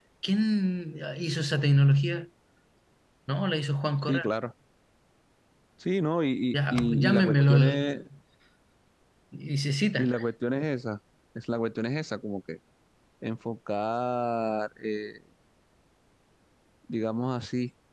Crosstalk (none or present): present